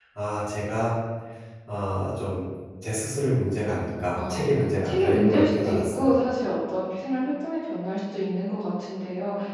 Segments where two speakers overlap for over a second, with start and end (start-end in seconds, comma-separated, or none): 4.2-6.1